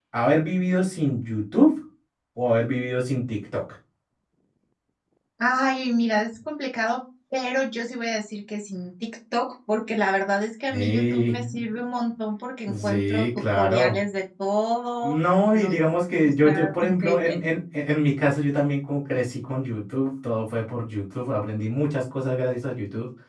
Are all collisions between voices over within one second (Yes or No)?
No